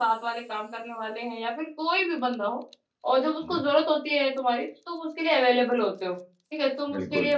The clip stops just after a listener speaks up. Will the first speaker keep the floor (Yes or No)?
Yes